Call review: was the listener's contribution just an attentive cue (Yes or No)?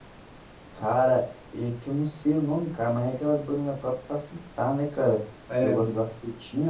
Yes